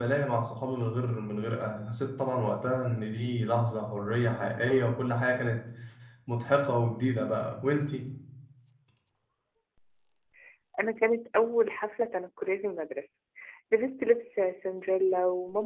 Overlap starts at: none

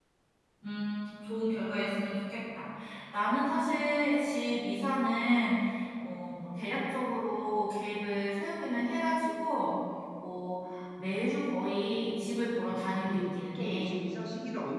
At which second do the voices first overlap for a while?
13 s

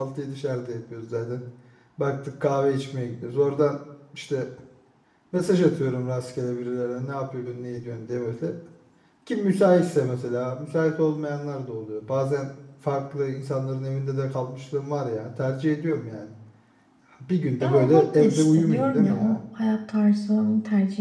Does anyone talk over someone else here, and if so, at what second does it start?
18 s

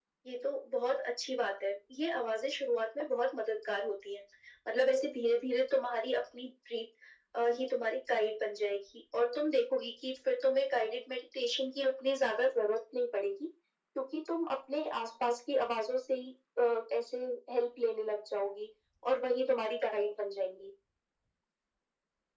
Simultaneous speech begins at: none

